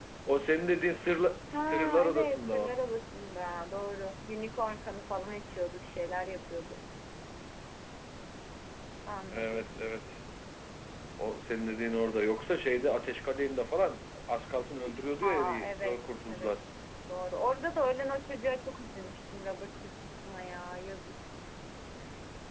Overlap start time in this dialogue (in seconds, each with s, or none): 1.5 s